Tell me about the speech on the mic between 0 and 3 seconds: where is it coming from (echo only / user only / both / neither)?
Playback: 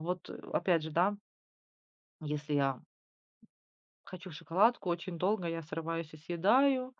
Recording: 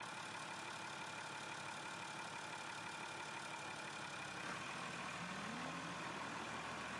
neither